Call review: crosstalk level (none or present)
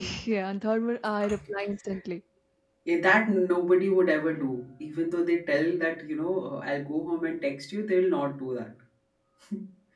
none